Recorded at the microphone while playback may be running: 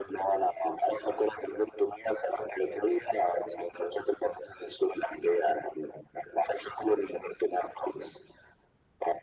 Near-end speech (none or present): none